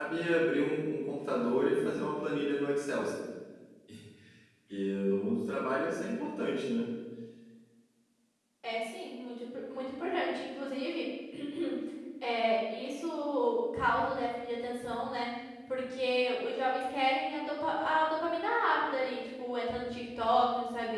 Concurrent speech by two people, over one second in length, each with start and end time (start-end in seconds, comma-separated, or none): none